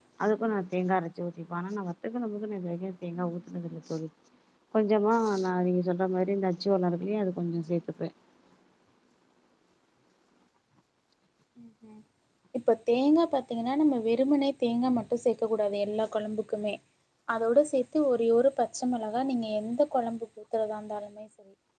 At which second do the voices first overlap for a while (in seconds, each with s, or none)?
none